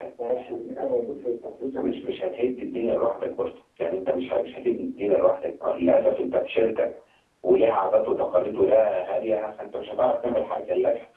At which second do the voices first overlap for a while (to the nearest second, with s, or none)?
1 s